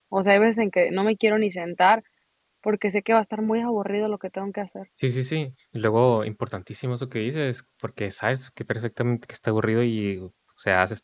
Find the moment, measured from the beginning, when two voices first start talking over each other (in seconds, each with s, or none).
none